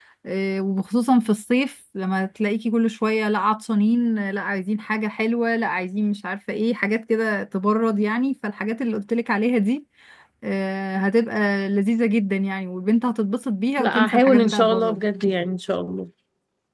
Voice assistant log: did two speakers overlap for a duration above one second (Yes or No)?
Yes